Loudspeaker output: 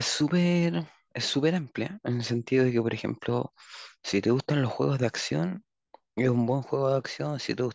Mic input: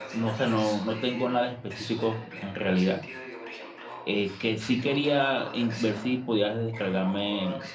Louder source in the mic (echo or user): user